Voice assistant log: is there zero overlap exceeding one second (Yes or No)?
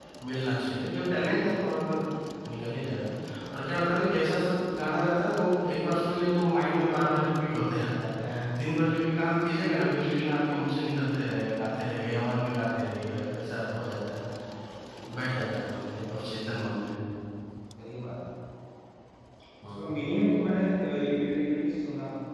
Yes